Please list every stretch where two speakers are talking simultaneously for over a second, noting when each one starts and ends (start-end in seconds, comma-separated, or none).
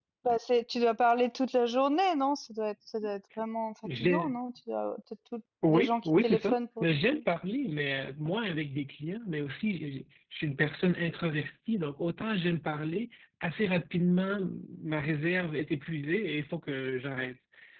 5.7-7.2